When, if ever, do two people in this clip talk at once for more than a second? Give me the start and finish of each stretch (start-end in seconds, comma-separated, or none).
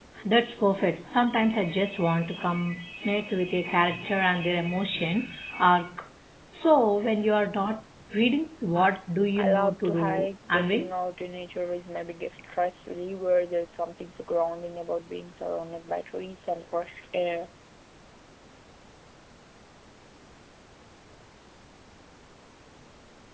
9.3-10.9